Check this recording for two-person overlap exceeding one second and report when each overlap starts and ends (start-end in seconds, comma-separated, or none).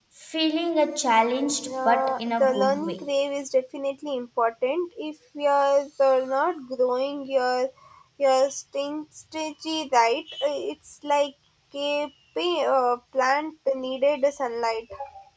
1.7-3.1